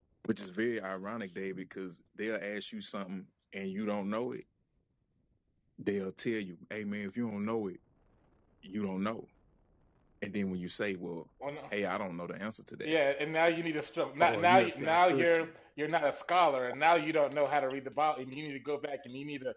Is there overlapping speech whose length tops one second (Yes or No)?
Yes